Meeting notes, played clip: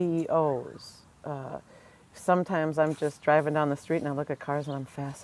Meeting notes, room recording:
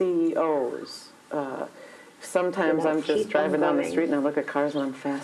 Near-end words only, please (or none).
you know keep on going